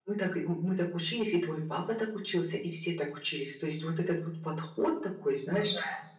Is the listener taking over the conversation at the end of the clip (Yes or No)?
No